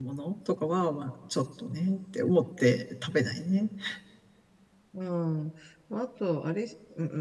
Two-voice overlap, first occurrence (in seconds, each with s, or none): none